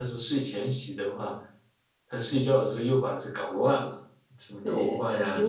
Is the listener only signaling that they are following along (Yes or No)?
No